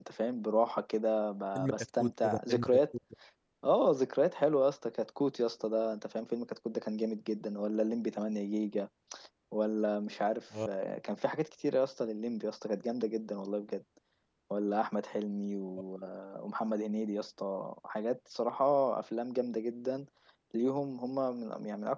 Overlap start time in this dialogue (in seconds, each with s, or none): 1.6 s